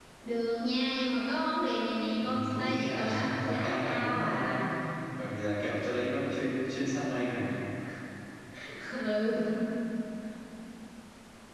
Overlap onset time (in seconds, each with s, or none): 2.2 s